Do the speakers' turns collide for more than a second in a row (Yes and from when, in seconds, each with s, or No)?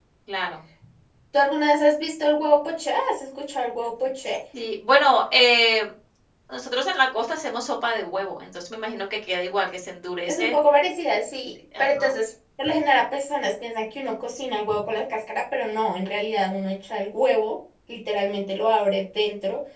No